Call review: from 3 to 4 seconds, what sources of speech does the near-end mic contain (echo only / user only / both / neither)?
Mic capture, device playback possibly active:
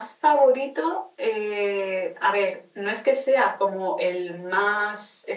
echo only